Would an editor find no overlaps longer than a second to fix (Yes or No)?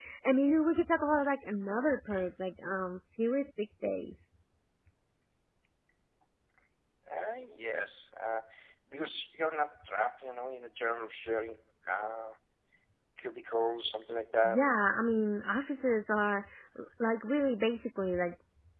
Yes